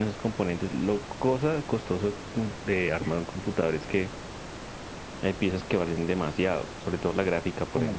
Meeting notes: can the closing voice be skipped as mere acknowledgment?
No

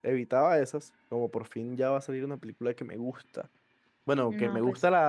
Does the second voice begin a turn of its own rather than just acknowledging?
No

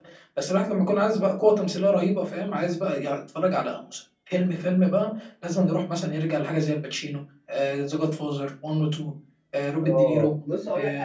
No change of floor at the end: No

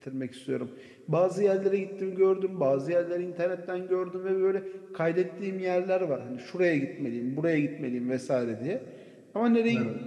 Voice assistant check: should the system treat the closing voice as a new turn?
No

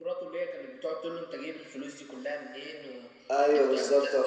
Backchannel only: No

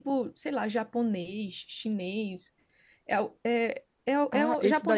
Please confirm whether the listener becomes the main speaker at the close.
Yes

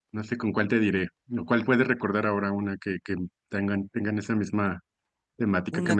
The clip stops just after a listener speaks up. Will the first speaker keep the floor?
No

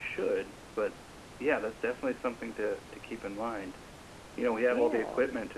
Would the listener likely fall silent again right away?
Yes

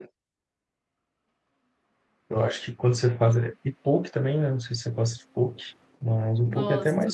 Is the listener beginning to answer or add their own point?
Yes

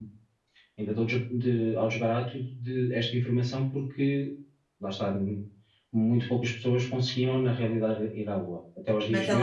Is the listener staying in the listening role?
No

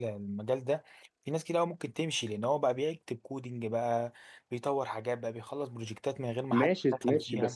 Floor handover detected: Yes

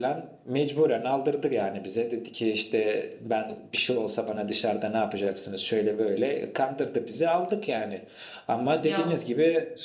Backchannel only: Yes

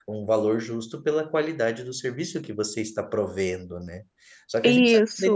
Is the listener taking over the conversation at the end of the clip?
No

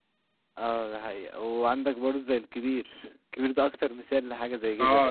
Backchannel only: No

